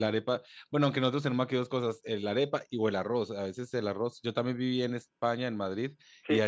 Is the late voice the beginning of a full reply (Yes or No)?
No